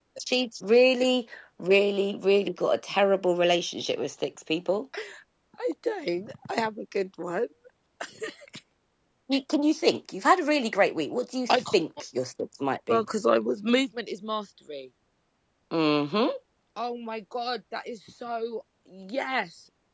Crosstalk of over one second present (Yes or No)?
No